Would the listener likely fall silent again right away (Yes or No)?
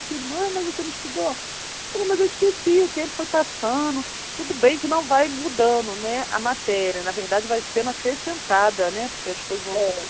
No